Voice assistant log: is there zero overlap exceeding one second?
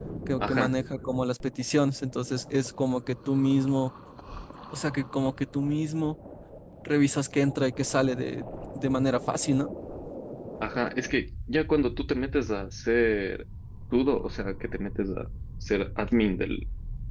Yes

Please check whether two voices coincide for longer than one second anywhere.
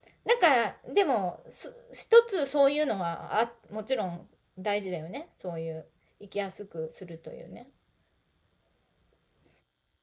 No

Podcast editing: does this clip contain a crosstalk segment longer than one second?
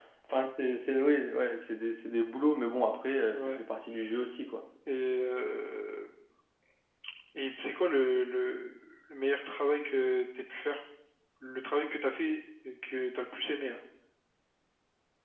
No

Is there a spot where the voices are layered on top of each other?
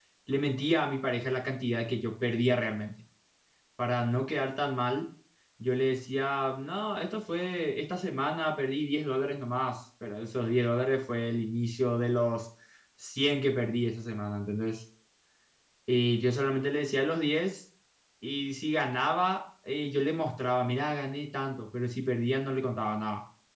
No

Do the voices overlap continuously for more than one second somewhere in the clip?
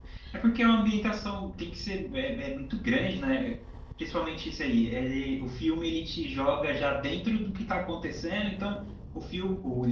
No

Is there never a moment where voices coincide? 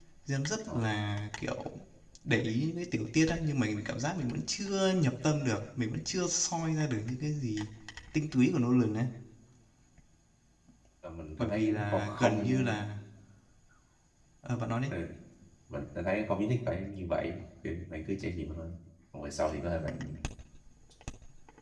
No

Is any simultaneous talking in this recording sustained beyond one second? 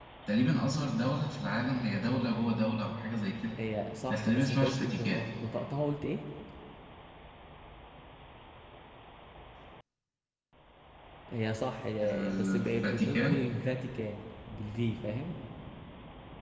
Yes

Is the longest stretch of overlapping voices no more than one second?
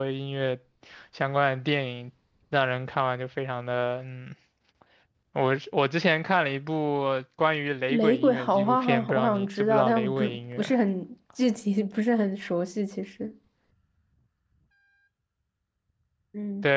No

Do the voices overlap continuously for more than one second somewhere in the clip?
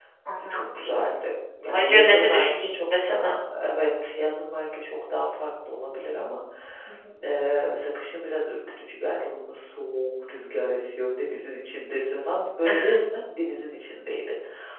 Yes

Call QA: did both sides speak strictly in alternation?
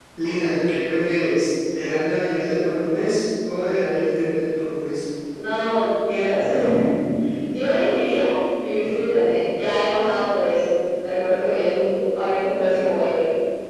Yes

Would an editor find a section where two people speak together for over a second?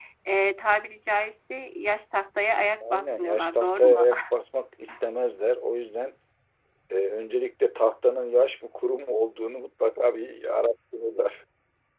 Yes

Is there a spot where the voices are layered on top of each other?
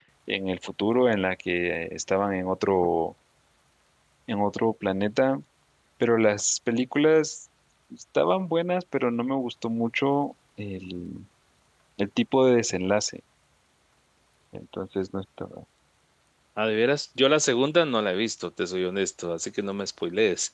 No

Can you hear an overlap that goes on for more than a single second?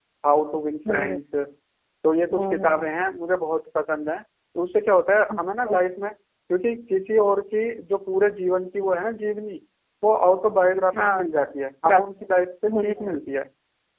No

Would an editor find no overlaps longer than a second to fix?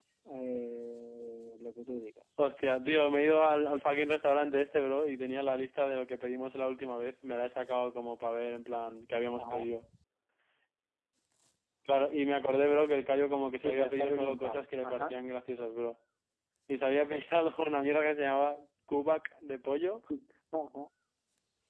No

